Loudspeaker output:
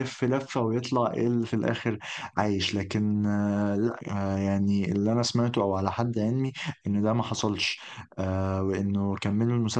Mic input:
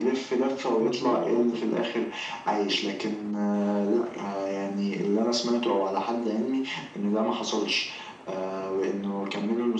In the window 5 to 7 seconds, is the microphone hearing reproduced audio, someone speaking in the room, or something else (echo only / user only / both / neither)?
echo only